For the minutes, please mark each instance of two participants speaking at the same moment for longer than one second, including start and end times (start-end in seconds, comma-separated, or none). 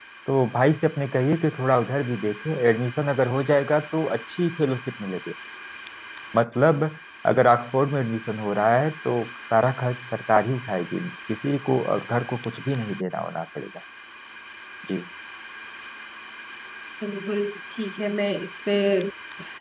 none